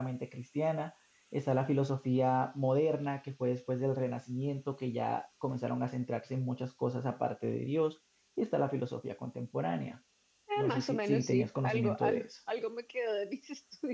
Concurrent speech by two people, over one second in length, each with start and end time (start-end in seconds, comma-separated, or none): 10.6-12.3